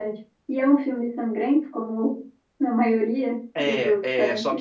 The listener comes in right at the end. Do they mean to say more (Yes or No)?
Yes